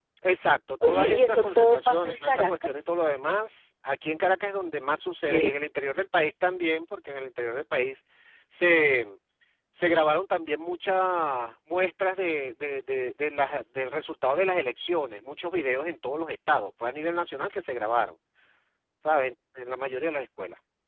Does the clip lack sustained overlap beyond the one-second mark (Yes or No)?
No